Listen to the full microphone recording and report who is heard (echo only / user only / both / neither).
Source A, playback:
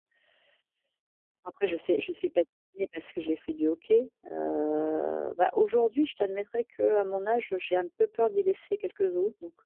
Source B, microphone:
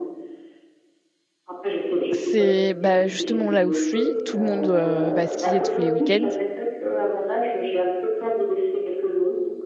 both